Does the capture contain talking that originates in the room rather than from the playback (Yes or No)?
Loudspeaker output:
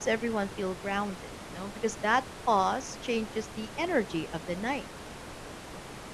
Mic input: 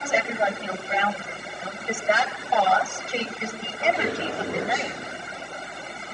Yes